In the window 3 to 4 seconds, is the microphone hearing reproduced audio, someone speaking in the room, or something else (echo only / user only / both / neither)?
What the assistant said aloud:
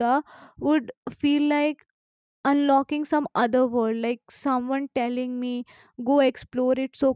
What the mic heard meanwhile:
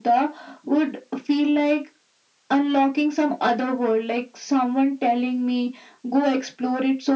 echo only